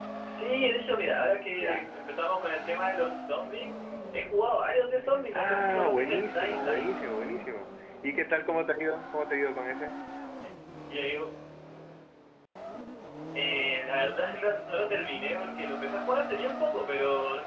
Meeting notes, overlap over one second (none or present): present